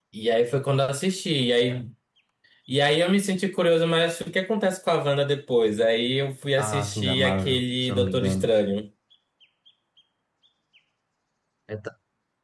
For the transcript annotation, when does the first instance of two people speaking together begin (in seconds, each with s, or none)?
6.6 s